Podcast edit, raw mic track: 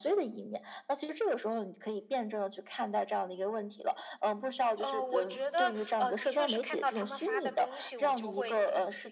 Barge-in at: 4.8 s

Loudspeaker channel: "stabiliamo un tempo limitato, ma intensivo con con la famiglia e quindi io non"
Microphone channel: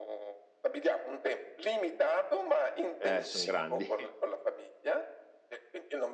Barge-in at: 3.0 s

